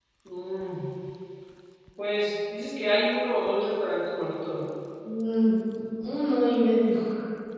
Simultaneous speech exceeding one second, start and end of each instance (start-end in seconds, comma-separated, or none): none